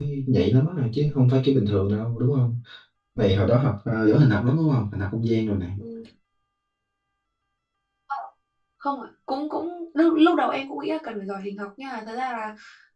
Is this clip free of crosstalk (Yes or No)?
Yes